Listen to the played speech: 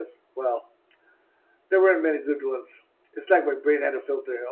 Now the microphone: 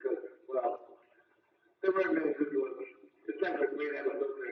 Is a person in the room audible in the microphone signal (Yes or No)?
No